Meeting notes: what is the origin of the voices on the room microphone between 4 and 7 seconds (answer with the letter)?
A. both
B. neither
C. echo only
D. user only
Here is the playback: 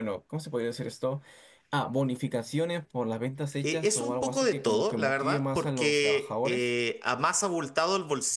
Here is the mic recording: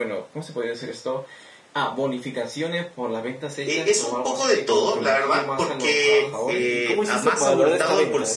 A